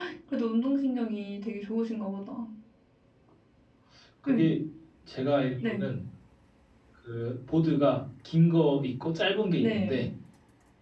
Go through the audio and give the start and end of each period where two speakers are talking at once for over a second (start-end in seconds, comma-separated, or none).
none